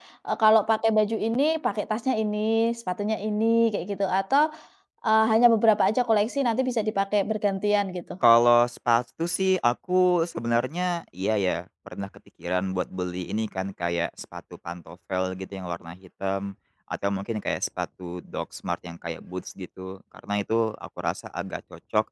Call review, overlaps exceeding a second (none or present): none